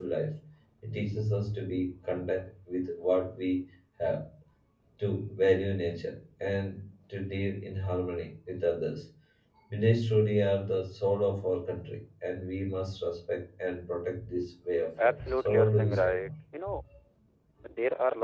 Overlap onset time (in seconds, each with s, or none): 15.0 s